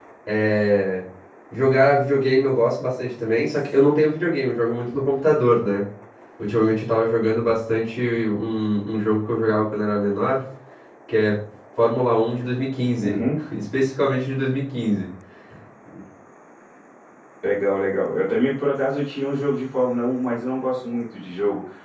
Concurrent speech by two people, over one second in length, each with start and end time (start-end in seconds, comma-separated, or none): none